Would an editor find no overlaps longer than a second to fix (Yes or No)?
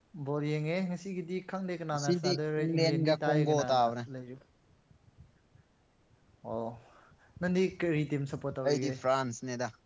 No